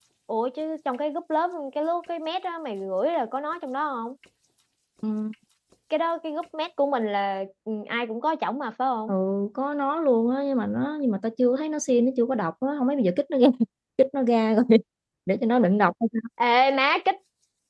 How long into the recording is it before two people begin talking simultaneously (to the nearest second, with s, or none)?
none